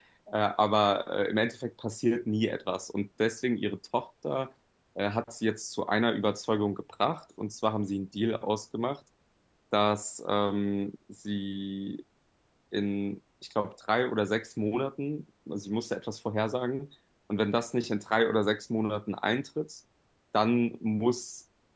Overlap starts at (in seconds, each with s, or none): none